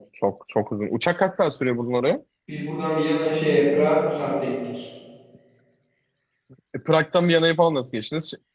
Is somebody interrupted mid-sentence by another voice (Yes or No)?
No